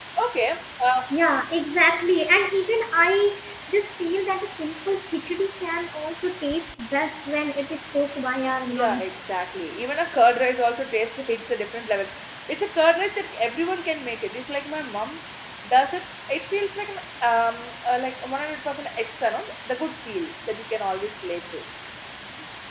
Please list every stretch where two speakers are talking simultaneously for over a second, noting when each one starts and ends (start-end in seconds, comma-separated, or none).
none